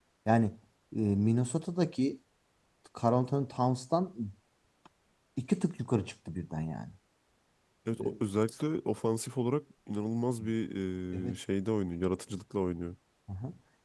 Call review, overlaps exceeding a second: none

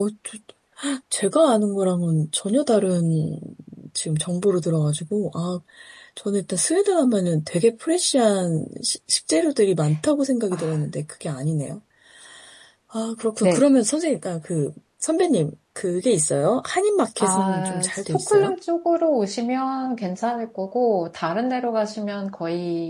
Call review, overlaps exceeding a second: present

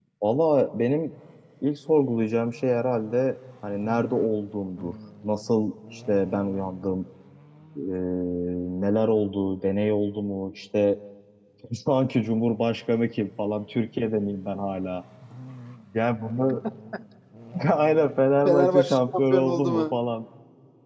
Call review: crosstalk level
present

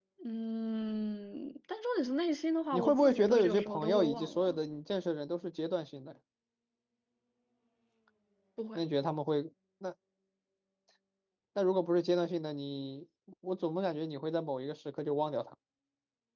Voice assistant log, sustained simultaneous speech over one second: present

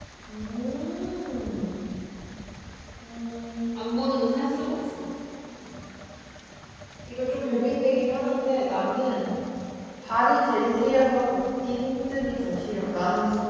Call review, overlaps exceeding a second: none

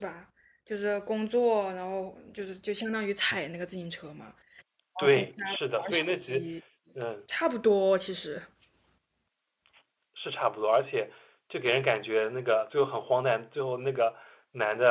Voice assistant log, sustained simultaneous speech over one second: present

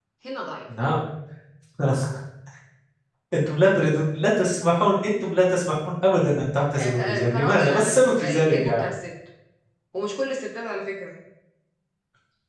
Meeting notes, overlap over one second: present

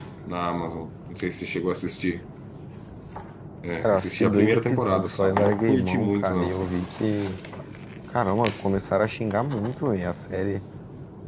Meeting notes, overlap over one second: present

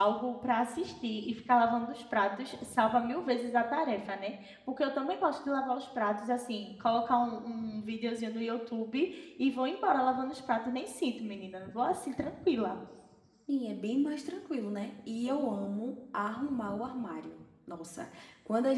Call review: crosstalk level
none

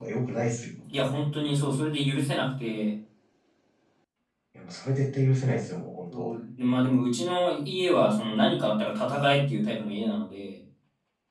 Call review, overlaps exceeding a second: none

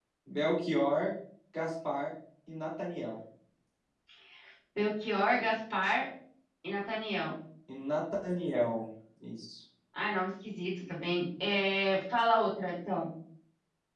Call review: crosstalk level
none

